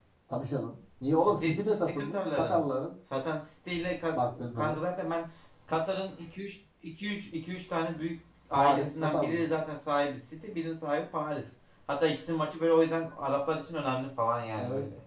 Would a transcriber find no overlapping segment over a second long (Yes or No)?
No